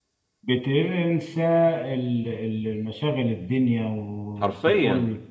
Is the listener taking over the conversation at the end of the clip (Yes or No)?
No